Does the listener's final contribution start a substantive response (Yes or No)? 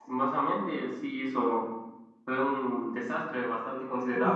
No